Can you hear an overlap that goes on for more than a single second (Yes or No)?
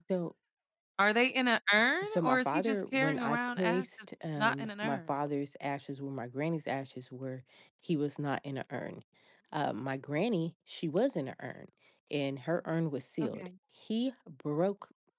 Yes